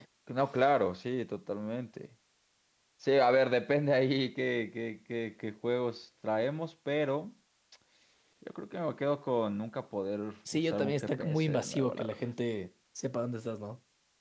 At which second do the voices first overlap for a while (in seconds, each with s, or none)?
10.5 s